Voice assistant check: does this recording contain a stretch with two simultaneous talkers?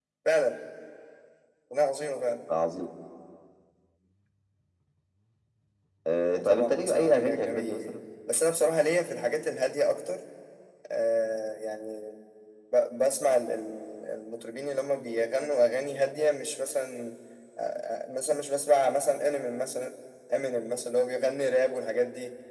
Yes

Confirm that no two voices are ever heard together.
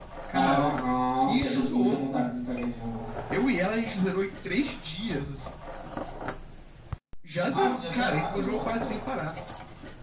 No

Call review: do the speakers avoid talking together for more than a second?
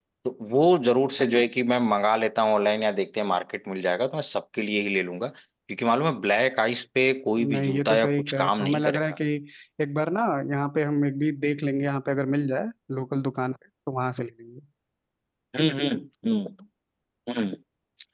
No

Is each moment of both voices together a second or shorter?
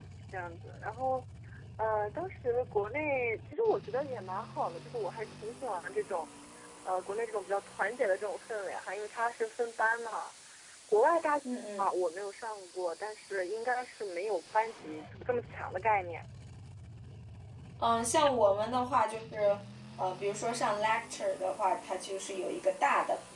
Yes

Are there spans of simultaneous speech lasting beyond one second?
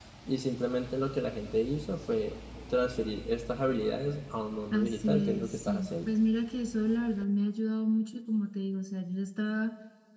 Yes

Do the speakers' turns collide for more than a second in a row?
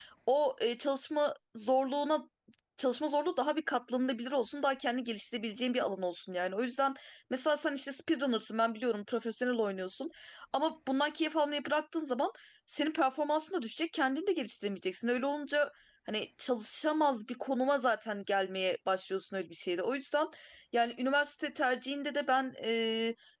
No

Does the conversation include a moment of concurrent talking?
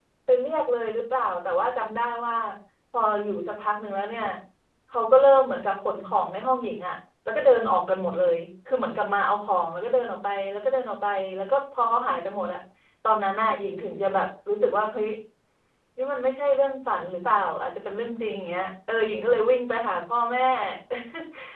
No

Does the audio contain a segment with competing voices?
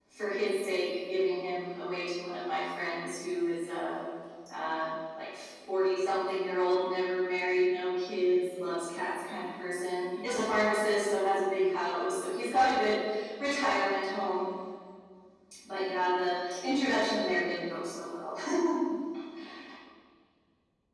No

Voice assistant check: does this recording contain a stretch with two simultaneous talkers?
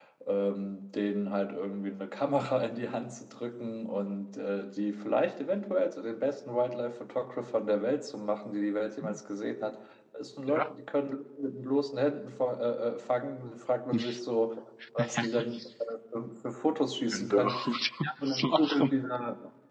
Yes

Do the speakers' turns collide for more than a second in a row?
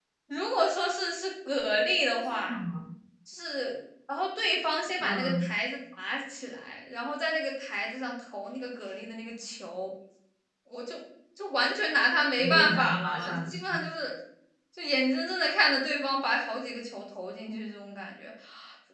Yes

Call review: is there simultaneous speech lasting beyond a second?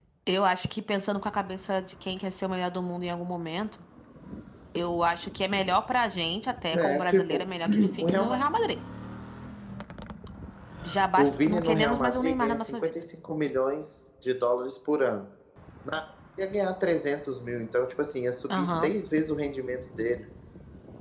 Yes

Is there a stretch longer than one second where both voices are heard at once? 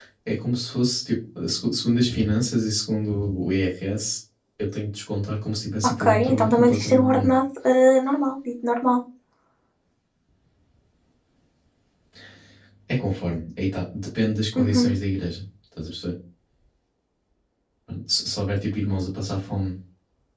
Yes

